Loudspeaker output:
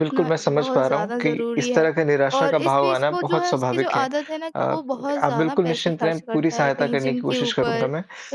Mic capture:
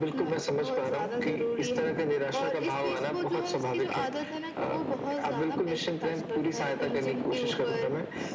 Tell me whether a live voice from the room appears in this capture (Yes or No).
No